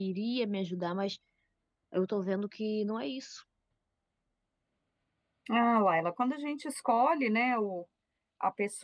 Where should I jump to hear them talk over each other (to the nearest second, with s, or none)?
none